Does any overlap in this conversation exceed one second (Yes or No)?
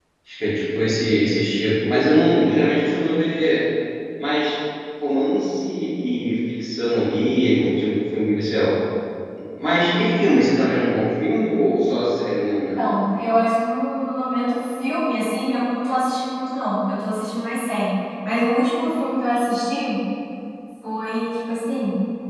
No